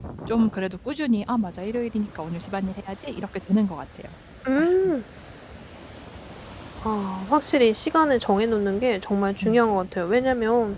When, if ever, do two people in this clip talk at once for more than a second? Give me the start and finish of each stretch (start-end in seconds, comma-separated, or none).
none